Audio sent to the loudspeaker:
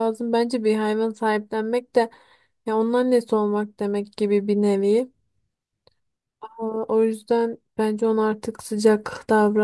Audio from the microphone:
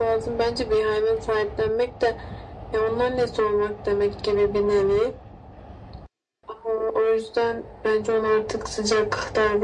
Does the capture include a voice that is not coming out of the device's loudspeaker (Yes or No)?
No